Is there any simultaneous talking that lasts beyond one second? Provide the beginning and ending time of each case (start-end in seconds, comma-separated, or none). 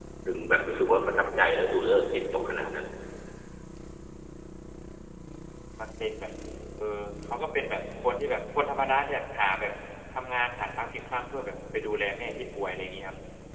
none